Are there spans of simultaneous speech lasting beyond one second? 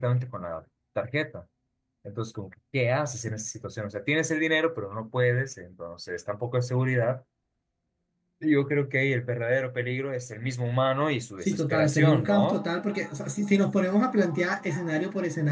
Yes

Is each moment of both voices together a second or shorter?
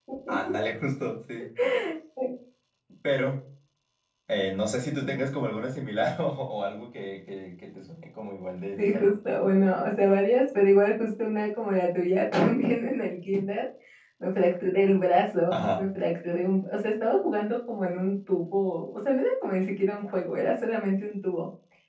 Yes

